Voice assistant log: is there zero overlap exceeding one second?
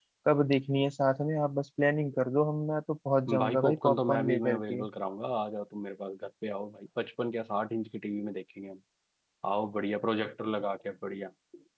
No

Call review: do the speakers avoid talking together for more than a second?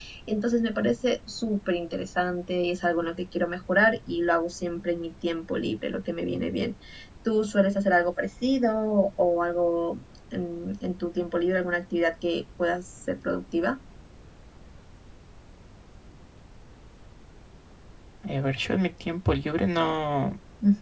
Yes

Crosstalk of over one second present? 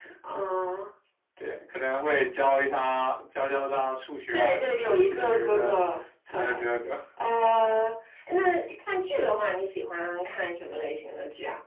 Yes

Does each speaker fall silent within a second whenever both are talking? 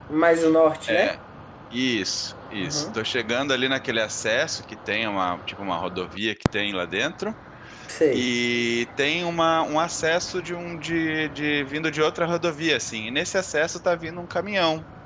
Yes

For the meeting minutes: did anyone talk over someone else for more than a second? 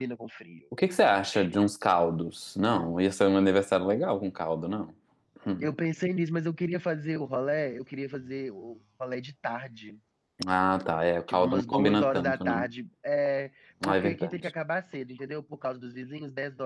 Yes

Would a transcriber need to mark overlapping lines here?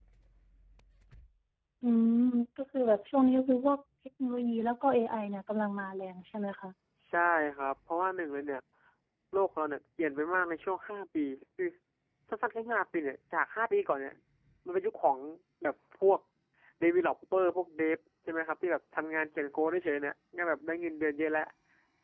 No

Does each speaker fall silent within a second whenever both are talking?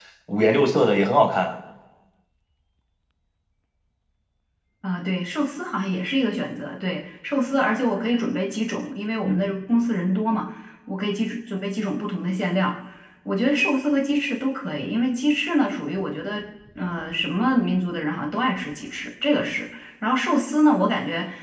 Yes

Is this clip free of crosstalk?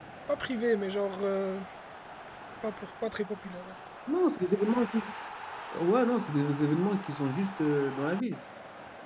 Yes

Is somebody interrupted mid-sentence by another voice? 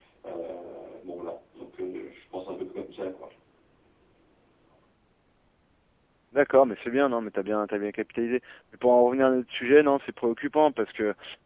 No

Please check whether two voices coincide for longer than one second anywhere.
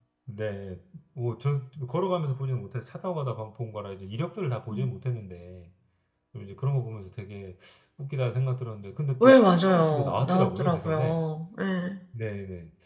Yes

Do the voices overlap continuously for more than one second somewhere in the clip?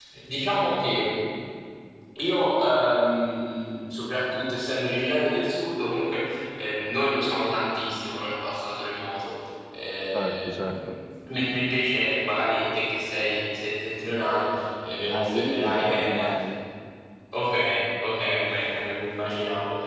Yes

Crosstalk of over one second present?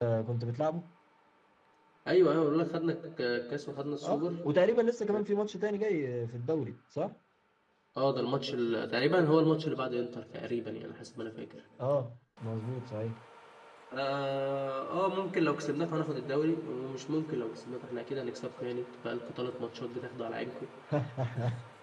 No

